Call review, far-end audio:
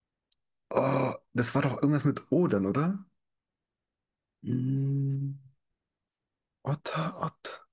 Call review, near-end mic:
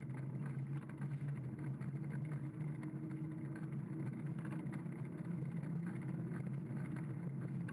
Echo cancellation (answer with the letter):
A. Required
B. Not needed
B